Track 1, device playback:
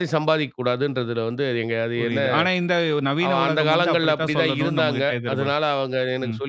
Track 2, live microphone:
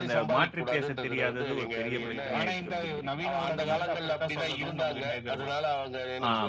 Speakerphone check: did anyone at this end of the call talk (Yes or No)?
Yes